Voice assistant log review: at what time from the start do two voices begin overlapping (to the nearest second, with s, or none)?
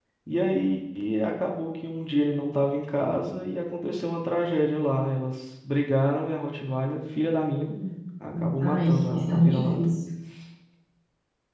9 s